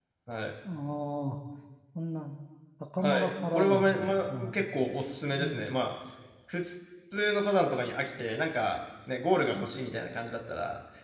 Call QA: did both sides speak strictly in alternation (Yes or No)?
No